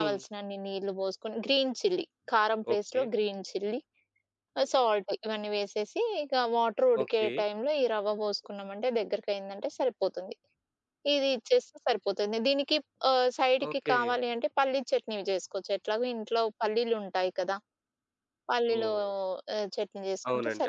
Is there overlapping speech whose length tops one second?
No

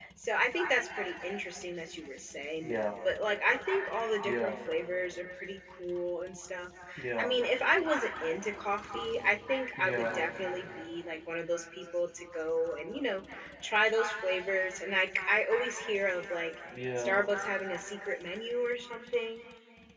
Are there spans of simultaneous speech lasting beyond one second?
No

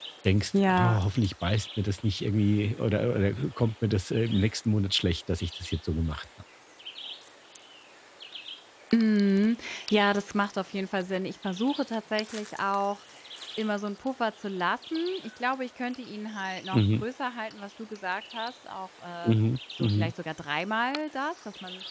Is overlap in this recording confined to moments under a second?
Yes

